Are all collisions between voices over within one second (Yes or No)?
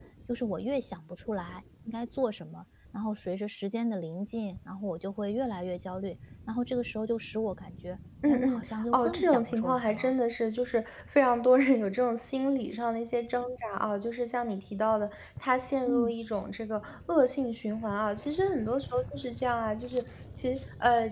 No